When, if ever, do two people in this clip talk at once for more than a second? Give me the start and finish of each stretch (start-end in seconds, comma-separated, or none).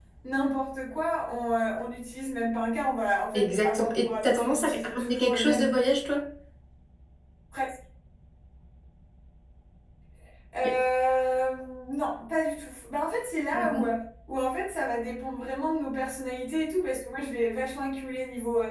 3.3-5.8